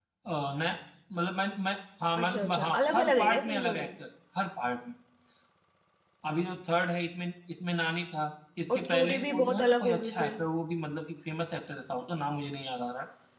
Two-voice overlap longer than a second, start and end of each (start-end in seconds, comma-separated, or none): 2.2-3.9, 8.7-10.4